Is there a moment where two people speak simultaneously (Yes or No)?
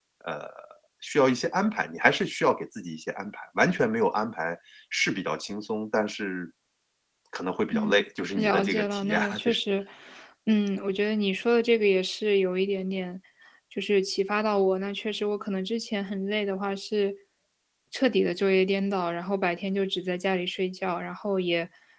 Yes